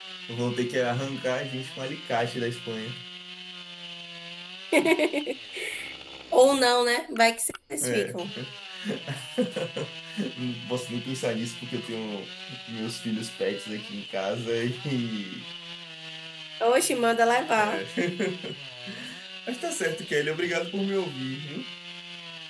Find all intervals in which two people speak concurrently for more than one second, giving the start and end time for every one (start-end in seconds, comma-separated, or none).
none